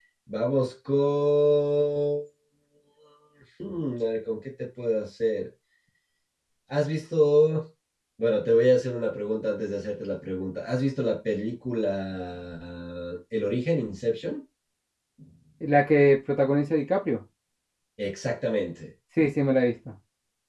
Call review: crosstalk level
none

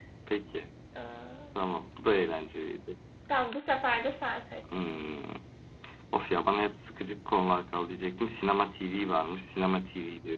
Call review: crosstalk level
none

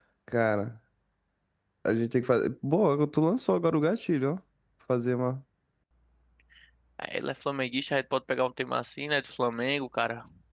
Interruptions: none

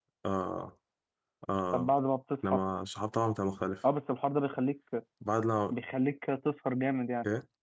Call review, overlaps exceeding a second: none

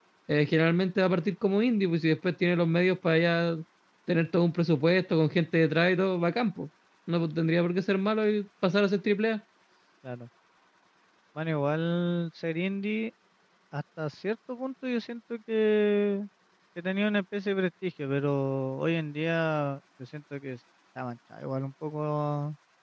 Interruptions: none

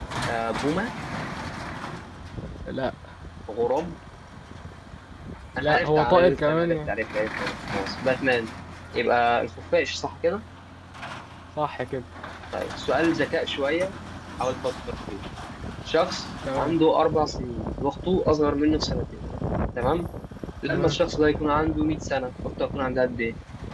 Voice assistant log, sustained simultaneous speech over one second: present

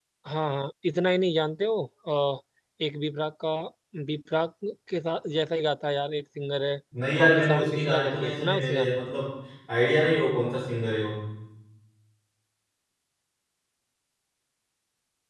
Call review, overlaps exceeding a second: present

